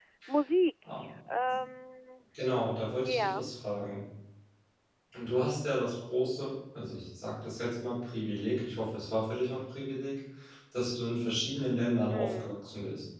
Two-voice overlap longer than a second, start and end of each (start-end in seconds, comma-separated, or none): none